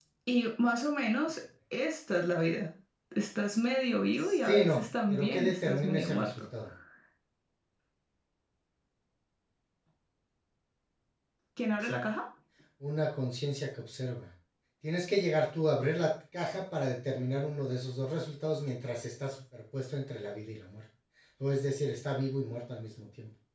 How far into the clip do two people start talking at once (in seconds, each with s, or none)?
4.2 s